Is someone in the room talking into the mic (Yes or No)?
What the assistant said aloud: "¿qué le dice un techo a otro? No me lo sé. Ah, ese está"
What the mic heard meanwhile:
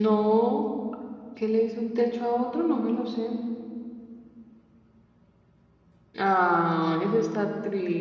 No